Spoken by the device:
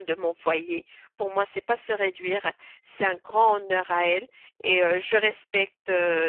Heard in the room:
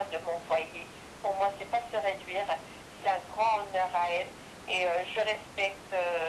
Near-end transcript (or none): none